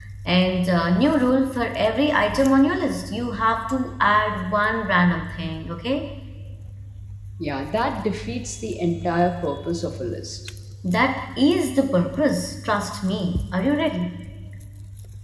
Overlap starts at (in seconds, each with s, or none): none